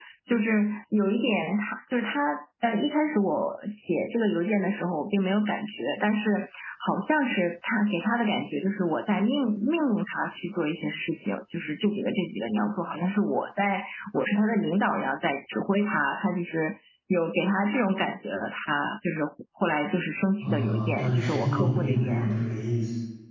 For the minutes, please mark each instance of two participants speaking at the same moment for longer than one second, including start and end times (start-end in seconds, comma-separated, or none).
20.4-22.4